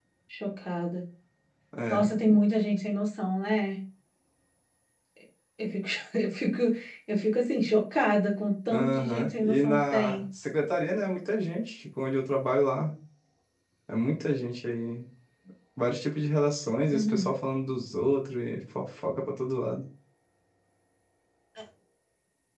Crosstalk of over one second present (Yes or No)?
Yes